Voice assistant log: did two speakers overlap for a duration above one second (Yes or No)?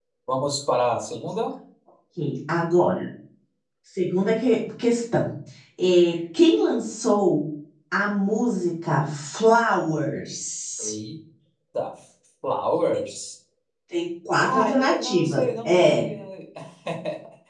Yes